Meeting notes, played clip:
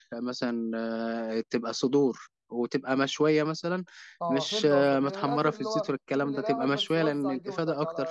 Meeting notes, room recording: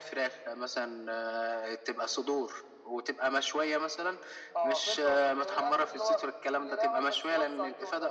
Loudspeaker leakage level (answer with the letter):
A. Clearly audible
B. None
A